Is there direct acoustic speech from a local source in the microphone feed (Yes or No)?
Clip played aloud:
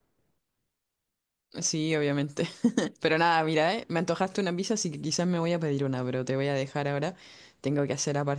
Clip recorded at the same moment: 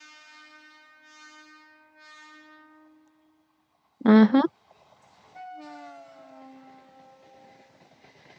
Yes